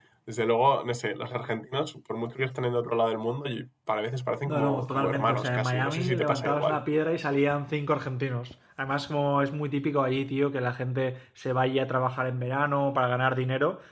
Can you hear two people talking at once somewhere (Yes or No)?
Yes